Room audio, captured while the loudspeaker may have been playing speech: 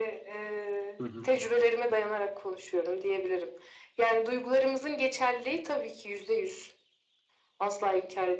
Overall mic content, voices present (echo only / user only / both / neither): both